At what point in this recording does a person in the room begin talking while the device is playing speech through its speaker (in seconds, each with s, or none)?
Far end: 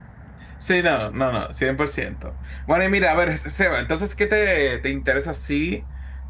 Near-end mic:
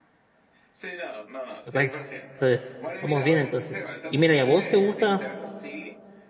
1.6 s